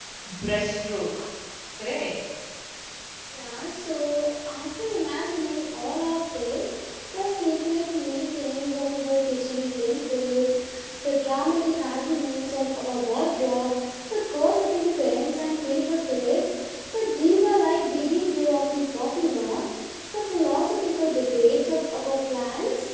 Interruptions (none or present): none